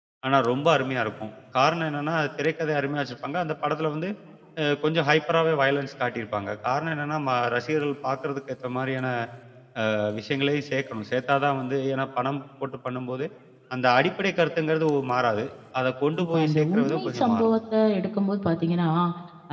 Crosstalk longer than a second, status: present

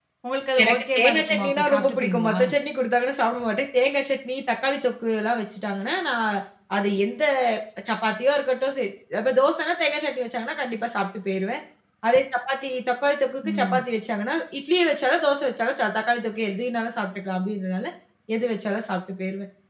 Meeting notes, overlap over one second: present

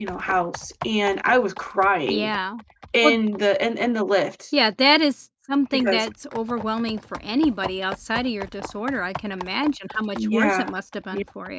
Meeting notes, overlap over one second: none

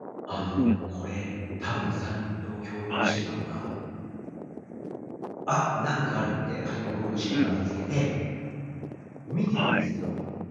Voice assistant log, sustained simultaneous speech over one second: none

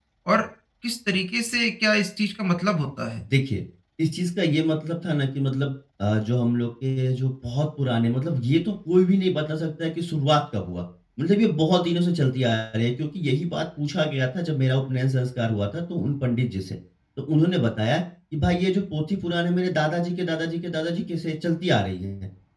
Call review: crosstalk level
none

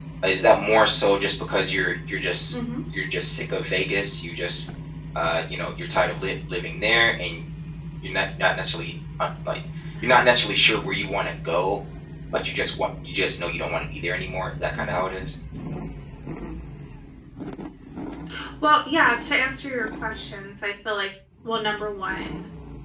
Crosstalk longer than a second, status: none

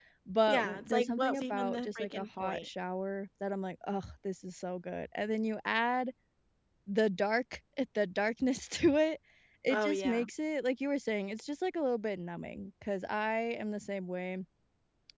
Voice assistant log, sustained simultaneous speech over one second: present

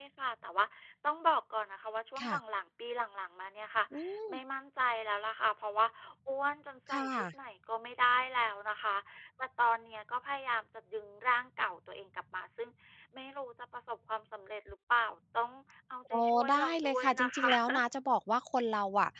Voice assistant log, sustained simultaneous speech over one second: present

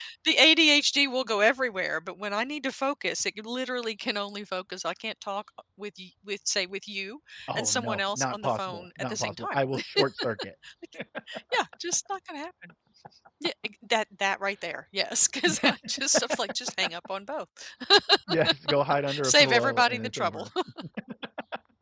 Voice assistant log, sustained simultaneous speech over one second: present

